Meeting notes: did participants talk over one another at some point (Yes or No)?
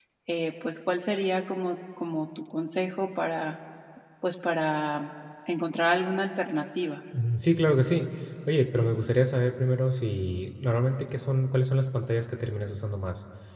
No